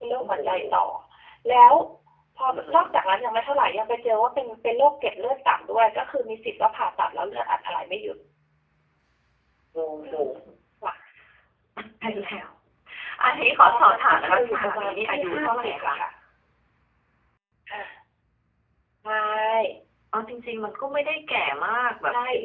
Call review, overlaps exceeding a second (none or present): present